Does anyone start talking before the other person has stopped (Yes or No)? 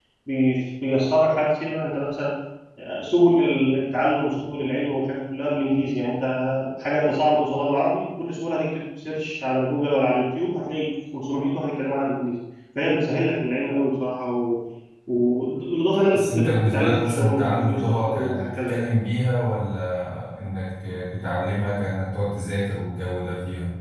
Yes